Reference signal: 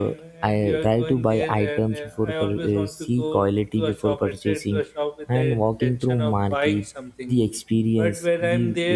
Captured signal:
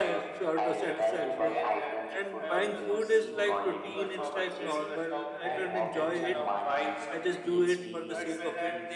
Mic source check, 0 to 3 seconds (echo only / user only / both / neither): both